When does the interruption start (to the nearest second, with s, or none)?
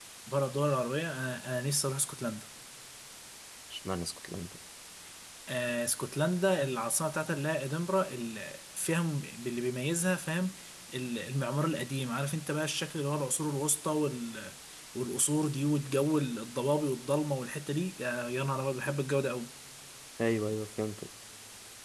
none